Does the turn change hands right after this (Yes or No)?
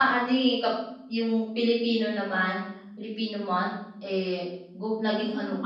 No